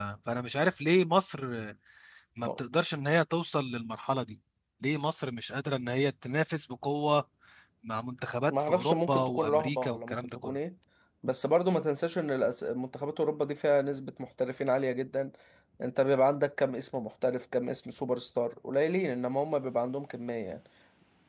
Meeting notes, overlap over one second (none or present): present